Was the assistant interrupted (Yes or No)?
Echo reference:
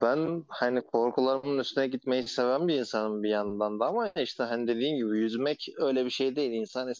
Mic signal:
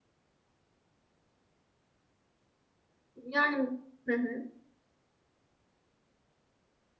Yes